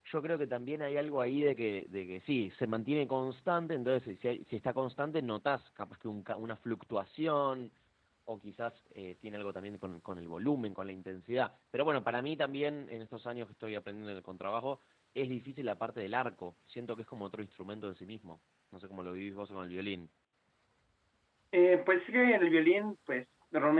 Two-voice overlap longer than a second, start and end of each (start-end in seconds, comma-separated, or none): none